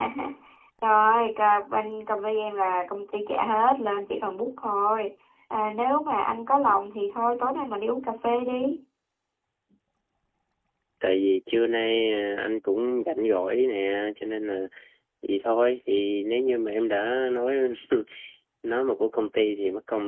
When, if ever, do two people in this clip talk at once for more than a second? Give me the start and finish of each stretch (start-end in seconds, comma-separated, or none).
none